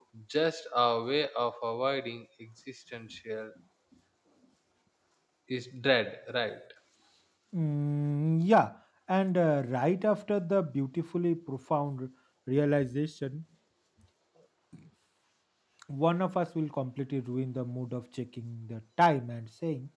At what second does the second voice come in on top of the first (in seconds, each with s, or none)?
none